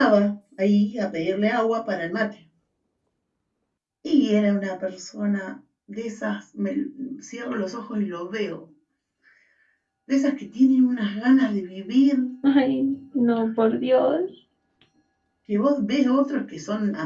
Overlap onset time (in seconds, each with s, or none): none